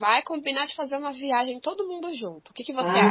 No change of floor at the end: No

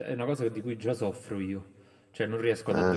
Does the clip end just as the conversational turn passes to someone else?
No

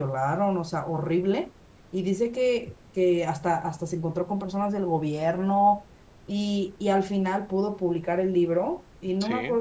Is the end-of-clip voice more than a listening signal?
No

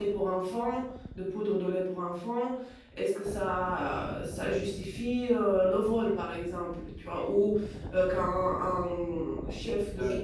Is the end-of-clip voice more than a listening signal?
No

